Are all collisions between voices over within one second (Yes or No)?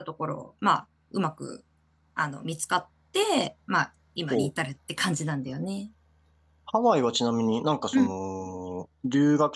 Yes